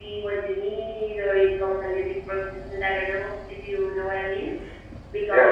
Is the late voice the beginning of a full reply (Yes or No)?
No